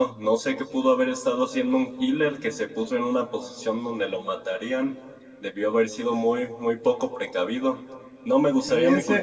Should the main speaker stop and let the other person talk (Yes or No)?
Yes